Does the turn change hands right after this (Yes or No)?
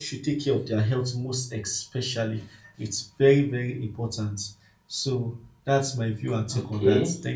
Yes